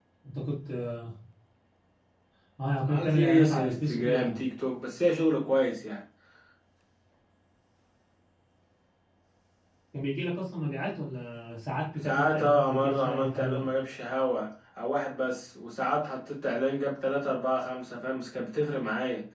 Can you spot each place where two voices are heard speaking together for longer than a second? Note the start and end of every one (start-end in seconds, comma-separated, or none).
2.9-4.4, 12.0-13.7